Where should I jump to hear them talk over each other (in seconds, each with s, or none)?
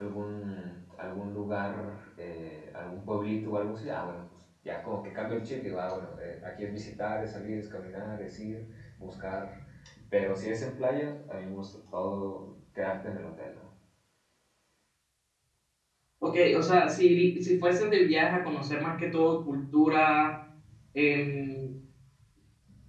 none